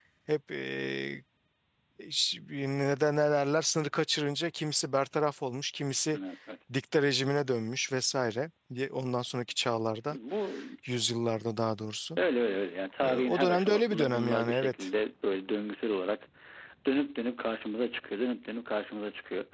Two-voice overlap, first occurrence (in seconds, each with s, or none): 13.0 s